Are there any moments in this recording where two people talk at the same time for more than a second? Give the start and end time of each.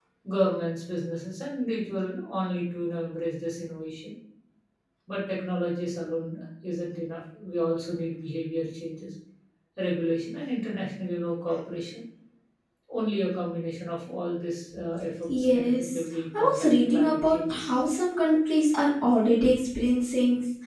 15.3-17.8

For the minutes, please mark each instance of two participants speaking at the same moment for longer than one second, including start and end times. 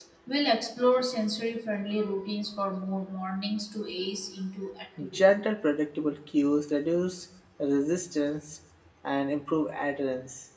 none

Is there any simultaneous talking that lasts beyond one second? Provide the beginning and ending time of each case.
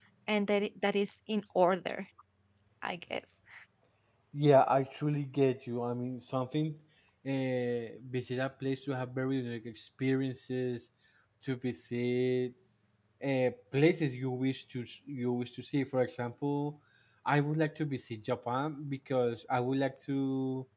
none

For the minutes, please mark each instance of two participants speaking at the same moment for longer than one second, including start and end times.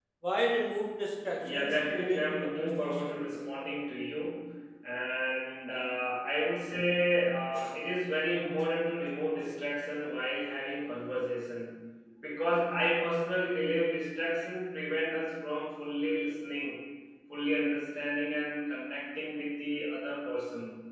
1.4-3.2

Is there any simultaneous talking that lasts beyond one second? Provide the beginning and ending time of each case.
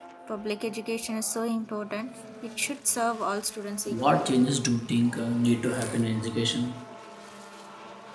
none

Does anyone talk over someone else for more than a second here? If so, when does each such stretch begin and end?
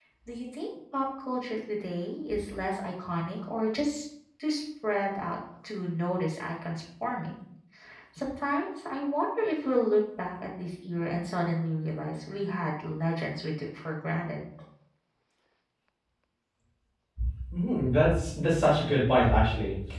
none

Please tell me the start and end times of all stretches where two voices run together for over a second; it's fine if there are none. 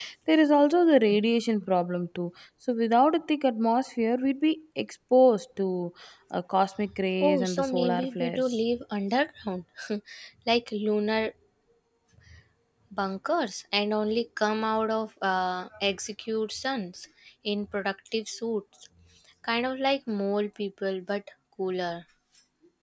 7.2-8.4

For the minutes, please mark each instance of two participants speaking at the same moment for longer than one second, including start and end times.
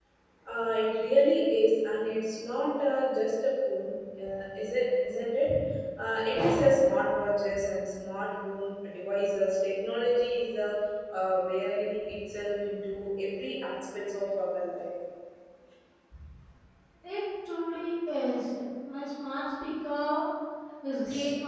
none

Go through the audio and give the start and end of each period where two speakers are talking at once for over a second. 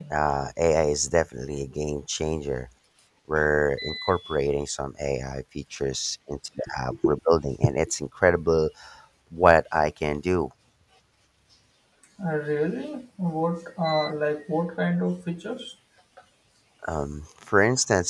none

